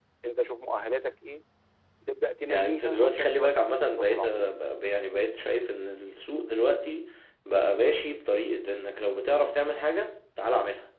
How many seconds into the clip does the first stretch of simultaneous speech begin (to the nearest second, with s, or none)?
2 s